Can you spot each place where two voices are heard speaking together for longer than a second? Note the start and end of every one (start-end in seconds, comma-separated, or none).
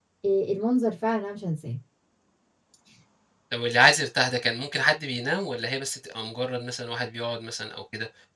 none